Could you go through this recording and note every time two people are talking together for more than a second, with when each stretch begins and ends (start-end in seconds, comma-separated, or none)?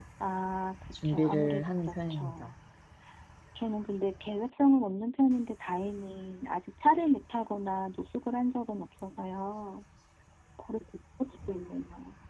1.1-2.5